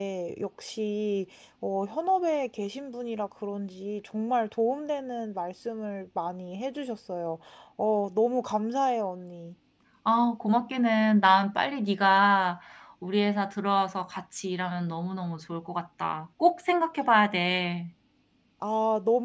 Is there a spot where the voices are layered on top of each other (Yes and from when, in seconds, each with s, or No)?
No